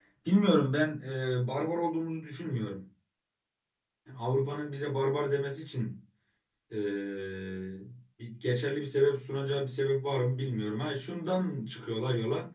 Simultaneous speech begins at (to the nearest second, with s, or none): none